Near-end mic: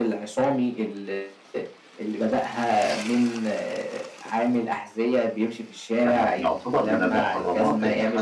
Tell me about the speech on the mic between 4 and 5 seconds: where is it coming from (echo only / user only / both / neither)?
echo only